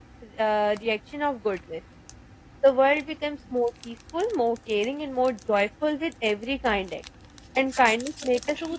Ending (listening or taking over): taking over